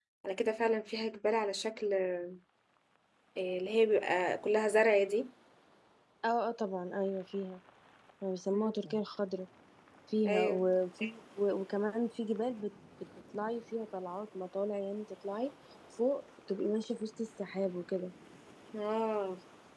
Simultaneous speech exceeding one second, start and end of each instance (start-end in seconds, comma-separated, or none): none